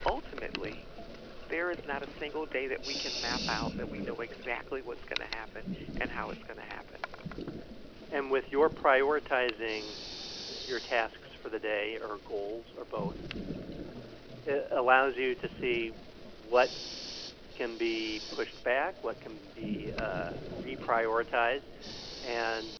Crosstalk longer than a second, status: none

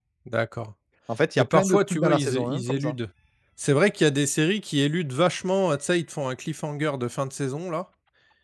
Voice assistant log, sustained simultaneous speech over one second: present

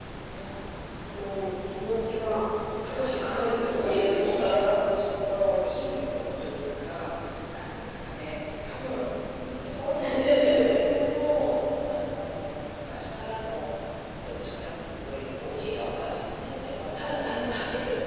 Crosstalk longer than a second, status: present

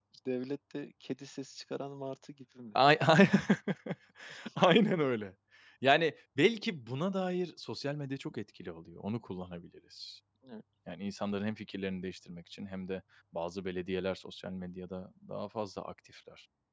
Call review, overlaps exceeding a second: none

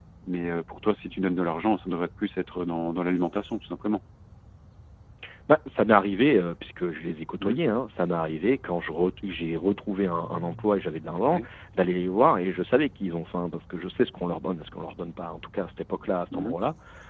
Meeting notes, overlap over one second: none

